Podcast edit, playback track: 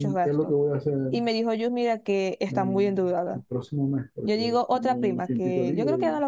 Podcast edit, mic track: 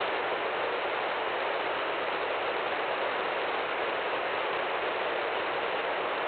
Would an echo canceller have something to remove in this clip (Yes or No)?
No